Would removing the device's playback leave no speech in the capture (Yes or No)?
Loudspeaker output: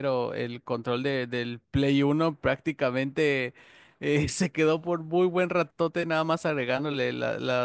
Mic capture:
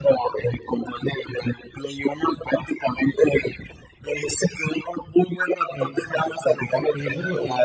No